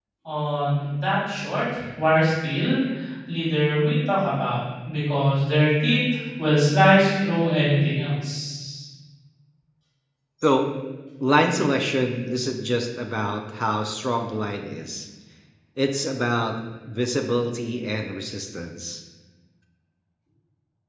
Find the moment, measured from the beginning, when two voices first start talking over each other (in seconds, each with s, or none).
none